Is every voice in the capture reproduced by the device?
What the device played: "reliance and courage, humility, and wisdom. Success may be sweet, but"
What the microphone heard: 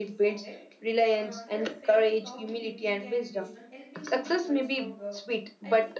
No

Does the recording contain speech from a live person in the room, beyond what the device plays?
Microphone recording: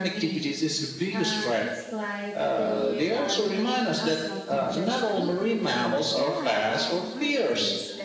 Yes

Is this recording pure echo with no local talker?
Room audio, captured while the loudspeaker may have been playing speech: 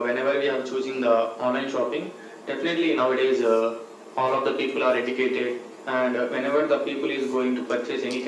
Yes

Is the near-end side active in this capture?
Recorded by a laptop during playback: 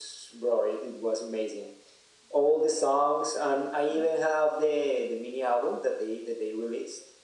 No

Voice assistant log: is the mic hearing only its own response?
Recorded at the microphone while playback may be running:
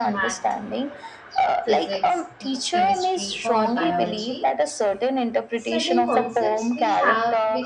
No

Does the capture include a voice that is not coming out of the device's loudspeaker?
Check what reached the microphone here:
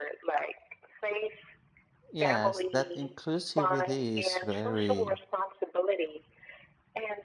Yes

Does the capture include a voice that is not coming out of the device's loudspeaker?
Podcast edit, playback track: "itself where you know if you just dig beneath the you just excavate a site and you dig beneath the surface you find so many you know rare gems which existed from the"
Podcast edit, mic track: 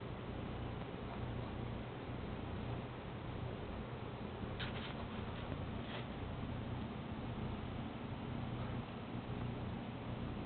No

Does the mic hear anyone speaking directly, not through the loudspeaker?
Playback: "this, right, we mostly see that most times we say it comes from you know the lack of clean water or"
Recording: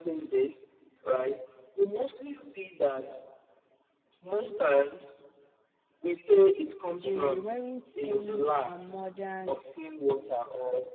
Yes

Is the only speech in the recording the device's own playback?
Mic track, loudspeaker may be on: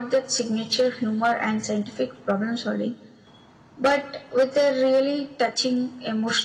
Yes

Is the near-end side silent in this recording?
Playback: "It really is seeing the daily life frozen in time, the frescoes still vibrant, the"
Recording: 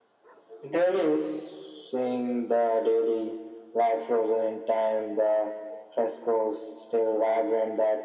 Yes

